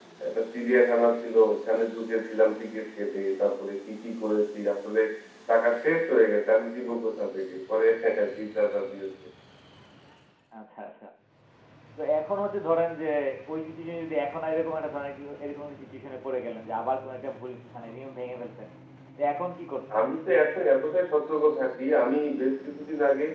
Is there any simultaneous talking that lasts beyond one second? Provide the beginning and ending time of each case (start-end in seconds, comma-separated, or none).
none